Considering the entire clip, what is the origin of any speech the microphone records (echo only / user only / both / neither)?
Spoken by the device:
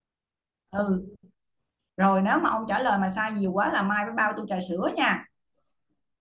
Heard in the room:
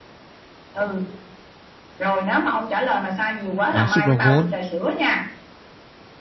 both